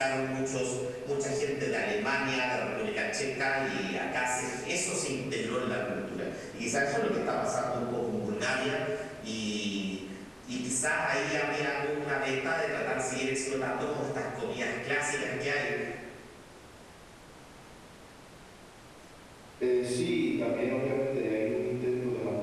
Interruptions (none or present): none